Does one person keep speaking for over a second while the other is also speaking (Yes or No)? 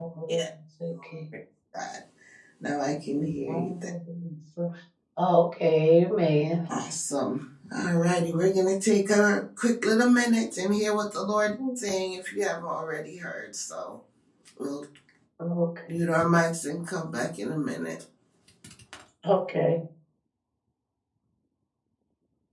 No